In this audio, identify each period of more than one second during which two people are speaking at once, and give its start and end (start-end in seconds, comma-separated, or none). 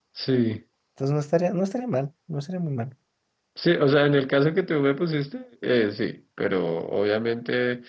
none